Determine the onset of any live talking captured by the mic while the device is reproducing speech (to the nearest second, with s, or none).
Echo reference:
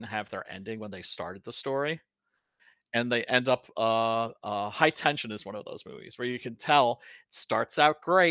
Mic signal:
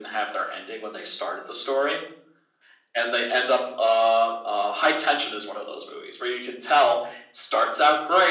none